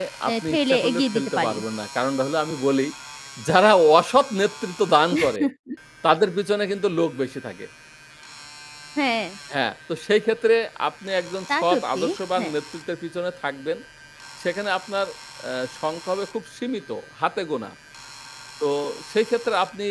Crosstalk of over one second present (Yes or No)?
Yes